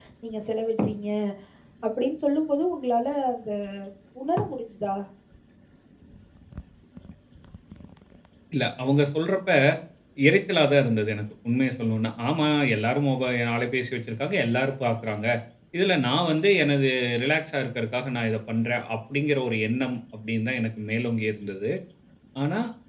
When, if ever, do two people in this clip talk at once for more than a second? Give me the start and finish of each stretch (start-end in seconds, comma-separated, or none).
none